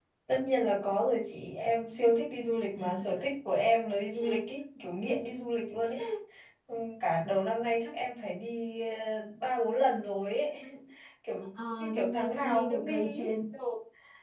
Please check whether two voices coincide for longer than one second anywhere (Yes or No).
Yes